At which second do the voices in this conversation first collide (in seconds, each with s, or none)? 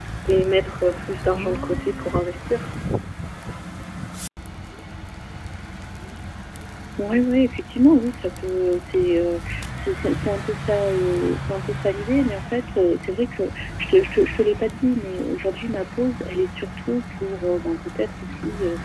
none